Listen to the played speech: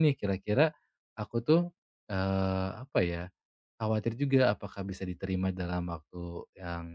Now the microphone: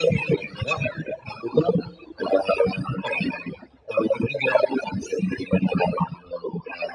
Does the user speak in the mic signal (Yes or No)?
No